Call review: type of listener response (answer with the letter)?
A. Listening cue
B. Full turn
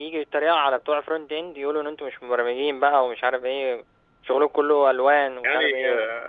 B